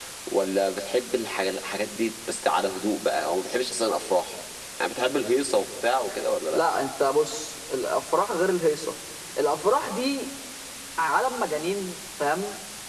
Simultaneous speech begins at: none

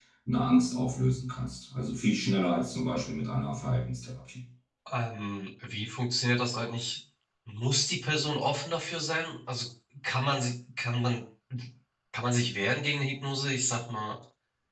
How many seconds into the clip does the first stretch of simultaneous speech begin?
none

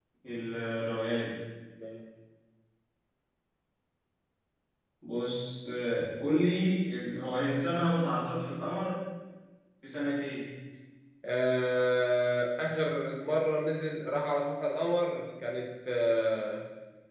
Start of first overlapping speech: none

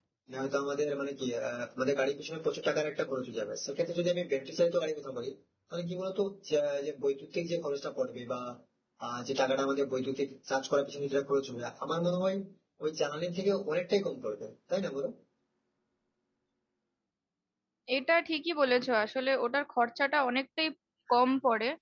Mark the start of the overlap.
none

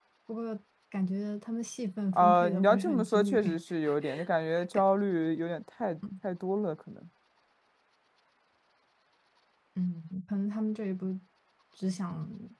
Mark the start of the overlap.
2.1 s

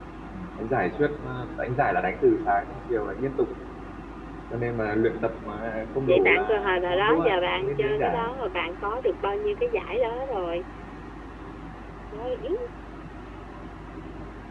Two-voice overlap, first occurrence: 6.0 s

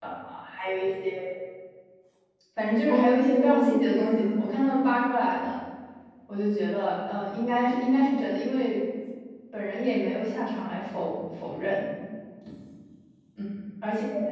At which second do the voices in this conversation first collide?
2.9 s

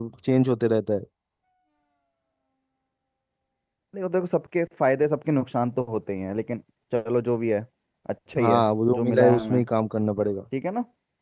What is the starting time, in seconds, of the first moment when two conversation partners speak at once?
8.4 s

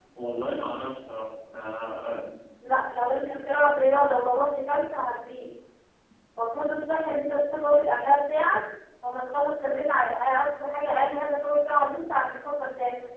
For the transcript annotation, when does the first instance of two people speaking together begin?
none

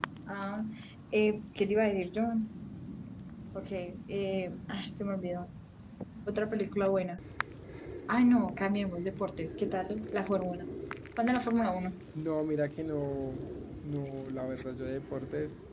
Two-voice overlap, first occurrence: none

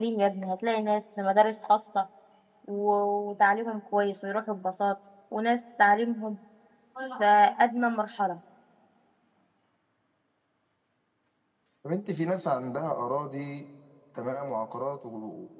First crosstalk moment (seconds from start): none

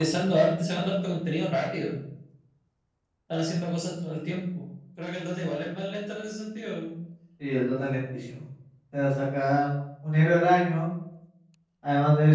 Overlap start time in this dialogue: none

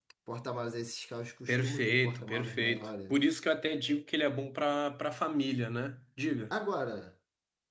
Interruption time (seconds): 1.5 s

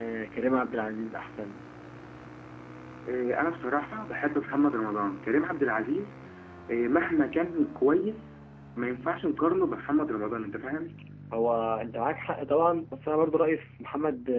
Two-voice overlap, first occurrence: none

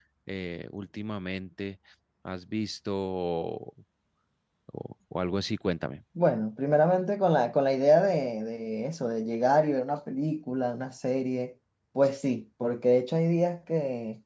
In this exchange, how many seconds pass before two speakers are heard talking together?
none

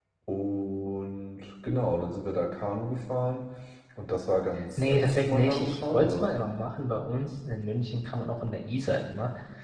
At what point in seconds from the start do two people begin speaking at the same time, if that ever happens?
4.8 s

